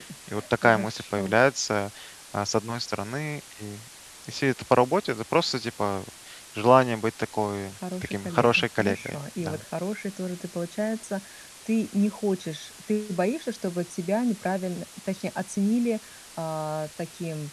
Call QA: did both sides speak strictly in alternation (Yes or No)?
No